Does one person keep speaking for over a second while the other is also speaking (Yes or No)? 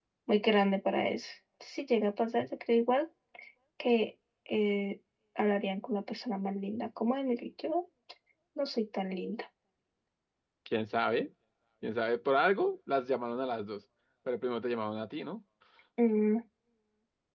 No